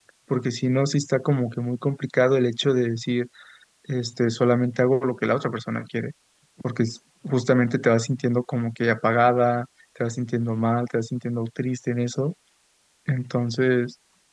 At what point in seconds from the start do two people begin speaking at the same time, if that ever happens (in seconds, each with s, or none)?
none